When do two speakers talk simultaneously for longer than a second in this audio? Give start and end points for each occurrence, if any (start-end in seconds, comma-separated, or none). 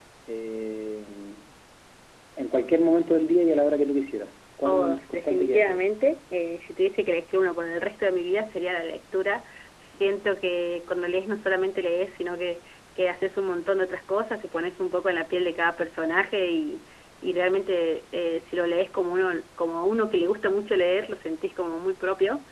4.6-6.0